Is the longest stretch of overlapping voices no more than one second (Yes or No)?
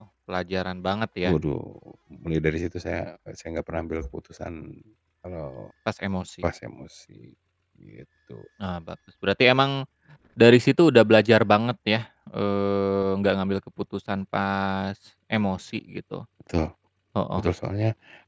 Yes